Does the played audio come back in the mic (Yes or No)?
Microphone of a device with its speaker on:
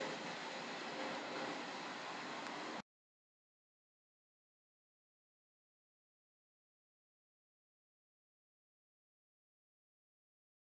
No